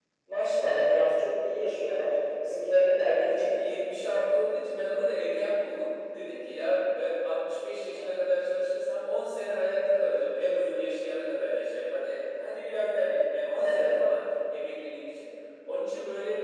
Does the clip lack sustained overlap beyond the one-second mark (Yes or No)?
Yes